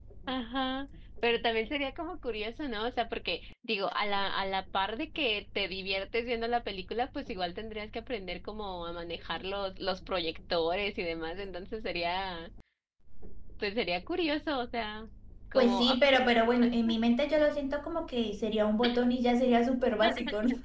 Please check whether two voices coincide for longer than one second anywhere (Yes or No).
Yes